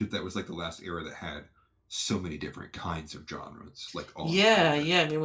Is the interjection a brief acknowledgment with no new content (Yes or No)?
No